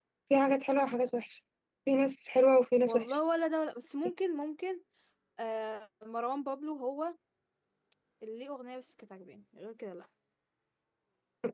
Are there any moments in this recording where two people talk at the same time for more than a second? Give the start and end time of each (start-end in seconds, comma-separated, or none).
none